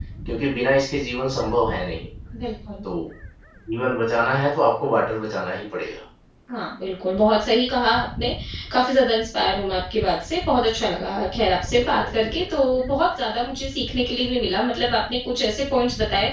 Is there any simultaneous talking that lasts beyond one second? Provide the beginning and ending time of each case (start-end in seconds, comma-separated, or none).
none